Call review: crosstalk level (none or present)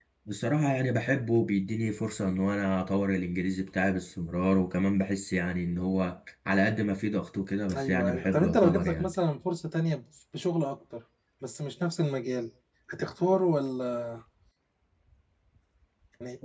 present